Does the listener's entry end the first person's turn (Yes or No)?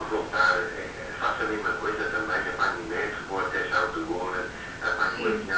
Yes